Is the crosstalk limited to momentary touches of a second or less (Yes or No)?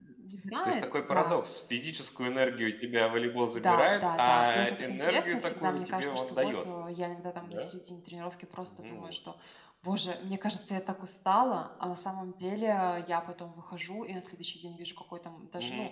No